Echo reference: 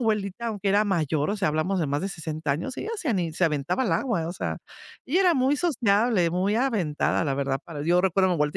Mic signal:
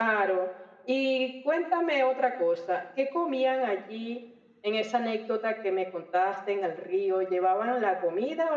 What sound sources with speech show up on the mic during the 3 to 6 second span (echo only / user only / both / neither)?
user only